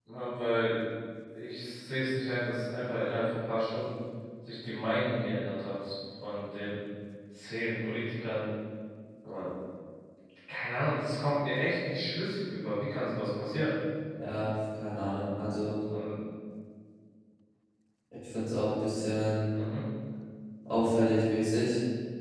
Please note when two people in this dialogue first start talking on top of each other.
none

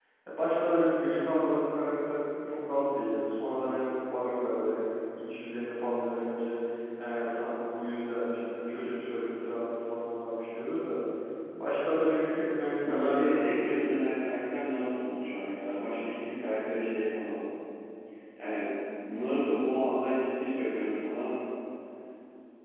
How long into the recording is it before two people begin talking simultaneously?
12.8 s

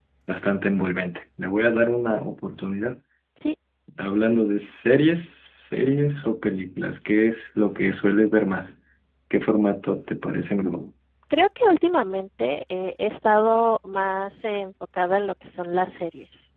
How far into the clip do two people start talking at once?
none

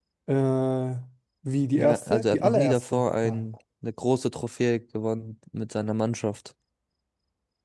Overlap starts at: 1.8 s

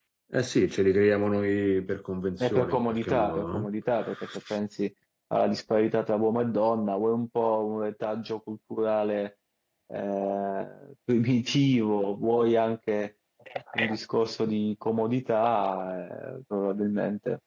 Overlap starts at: 2.4 s

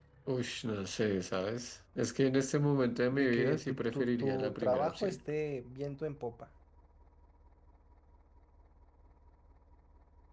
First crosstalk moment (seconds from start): 3.1 s

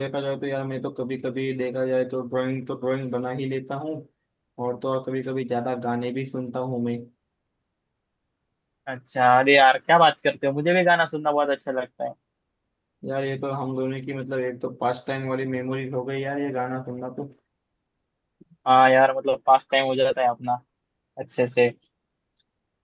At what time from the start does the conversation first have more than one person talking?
none

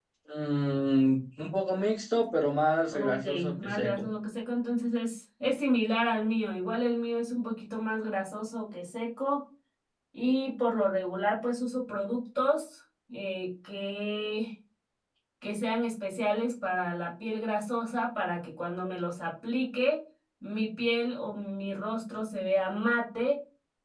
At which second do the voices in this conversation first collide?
2.9 s

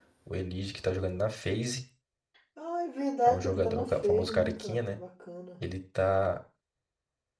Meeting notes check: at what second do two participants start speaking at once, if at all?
3.3 s

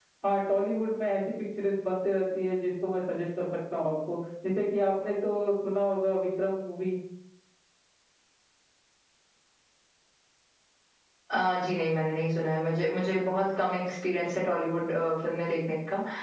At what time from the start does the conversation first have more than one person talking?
none

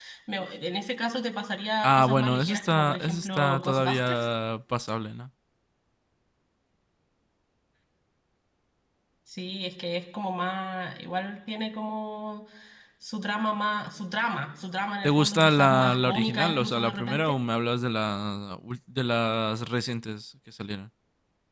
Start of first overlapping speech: 1.8 s

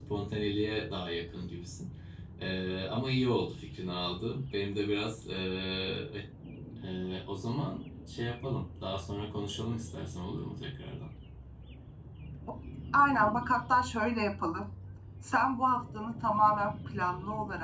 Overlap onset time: none

